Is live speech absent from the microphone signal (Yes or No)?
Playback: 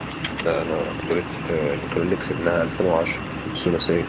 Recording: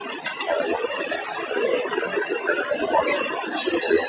Yes